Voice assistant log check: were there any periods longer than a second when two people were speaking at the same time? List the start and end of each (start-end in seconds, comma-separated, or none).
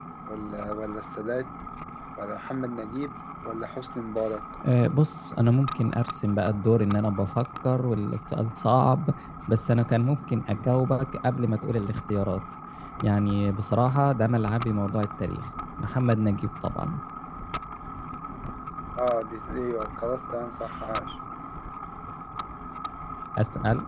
none